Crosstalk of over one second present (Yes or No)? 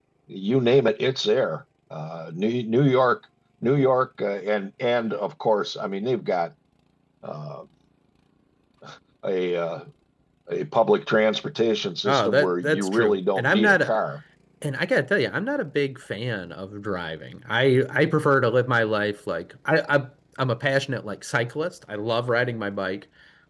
Yes